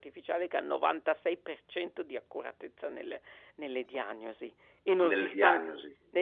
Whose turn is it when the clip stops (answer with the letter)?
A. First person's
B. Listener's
A